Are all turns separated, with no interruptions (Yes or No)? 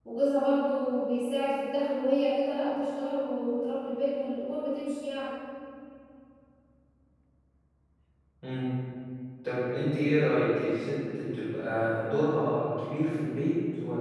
Yes